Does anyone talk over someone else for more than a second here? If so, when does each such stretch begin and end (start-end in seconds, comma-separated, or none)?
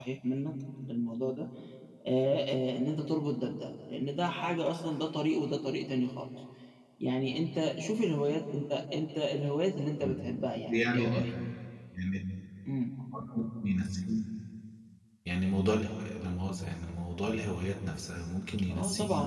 none